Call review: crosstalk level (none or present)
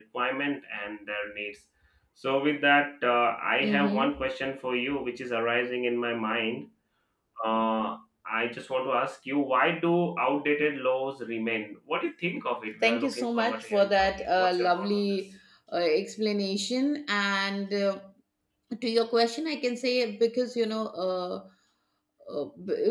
present